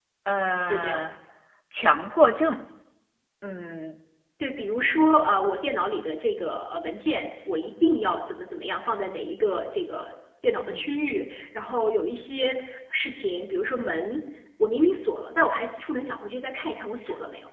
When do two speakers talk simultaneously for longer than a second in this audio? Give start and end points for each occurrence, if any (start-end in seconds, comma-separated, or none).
none